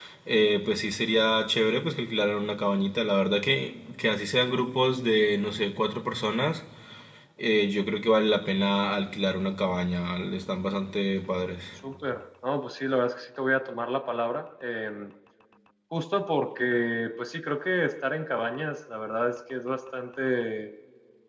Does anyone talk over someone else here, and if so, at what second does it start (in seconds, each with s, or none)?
none